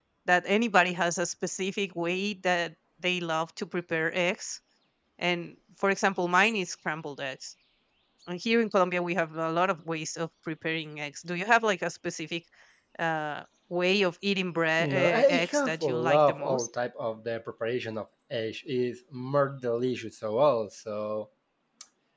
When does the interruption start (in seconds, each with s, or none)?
14.8 s